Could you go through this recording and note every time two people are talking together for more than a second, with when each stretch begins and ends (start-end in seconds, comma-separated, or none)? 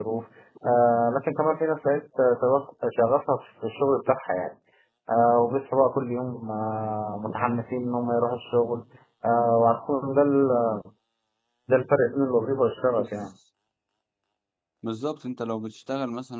none